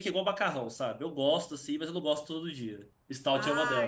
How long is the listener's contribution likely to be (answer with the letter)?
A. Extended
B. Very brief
A